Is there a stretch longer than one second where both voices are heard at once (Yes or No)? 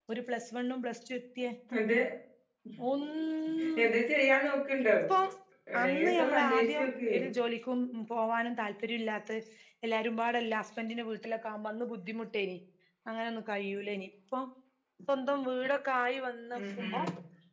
Yes